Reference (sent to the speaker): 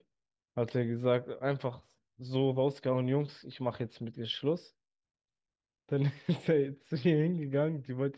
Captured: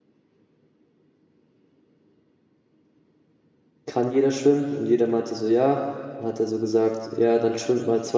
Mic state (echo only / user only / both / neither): user only